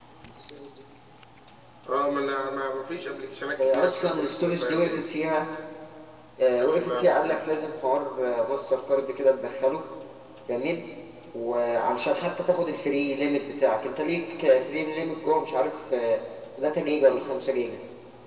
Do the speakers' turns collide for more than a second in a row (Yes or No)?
Yes